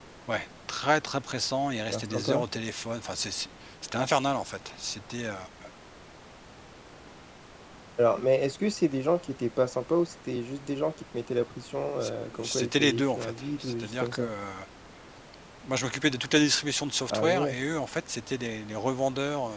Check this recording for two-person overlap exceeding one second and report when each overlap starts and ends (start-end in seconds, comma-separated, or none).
12.0-14.3